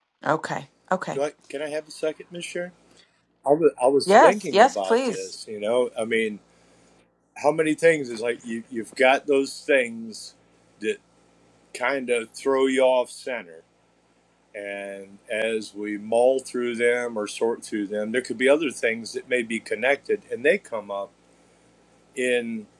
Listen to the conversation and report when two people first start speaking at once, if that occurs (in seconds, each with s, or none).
4.1 s